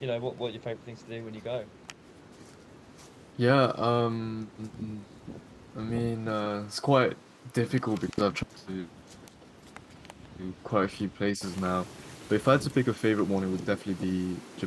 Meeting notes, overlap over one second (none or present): none